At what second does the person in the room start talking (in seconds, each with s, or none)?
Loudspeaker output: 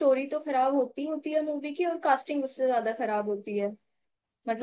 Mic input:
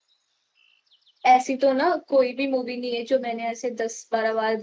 1.2 s